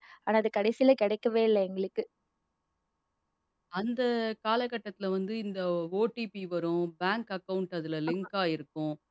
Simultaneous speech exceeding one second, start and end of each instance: none

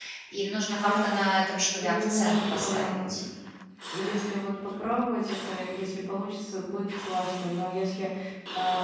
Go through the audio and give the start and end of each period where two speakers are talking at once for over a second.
1.8-3.2

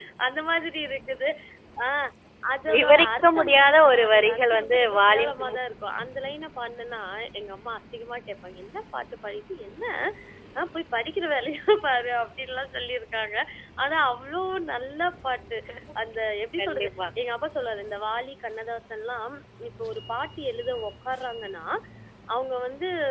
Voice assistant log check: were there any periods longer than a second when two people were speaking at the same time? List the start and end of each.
2.7-5.6

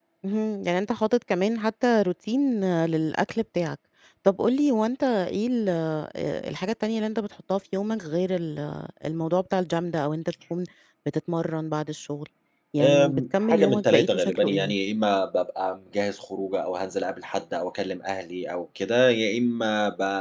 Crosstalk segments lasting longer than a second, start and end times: 12.8-14.7

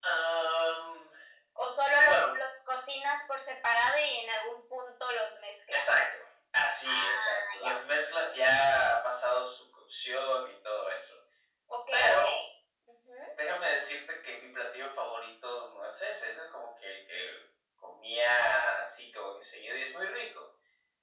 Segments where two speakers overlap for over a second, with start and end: 6.8-8.3

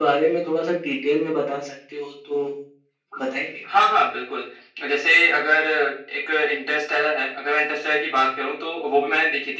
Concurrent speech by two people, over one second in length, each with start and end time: none

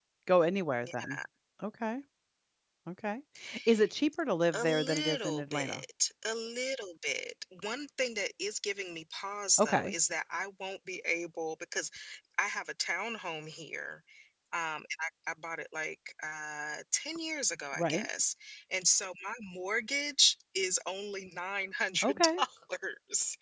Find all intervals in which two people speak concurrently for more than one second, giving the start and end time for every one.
4.5-5.8

